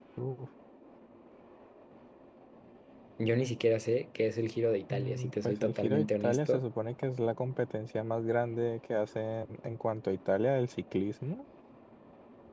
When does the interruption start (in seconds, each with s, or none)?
4.9 s